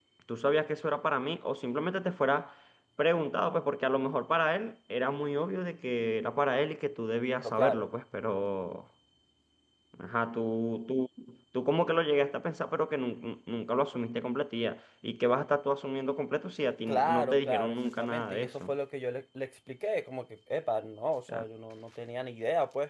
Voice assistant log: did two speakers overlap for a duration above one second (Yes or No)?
Yes